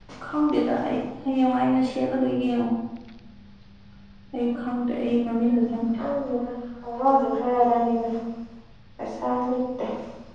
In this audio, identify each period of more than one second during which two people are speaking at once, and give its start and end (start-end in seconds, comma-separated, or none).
none